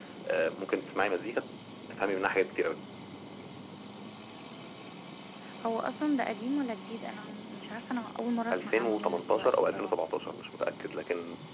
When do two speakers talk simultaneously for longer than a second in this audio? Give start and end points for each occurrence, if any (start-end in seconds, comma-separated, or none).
8.5-9.9